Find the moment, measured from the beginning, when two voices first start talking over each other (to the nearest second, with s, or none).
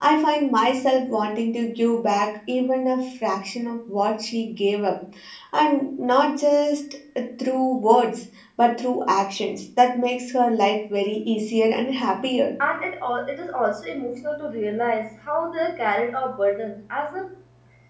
none